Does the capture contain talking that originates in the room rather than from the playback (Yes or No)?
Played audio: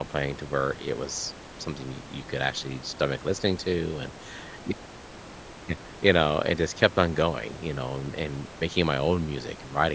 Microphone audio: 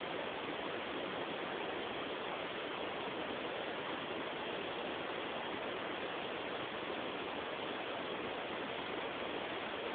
No